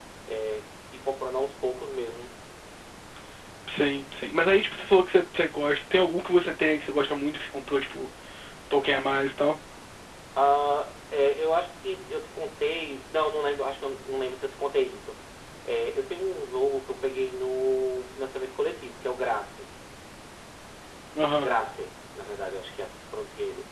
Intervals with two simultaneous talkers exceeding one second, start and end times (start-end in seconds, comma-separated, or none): none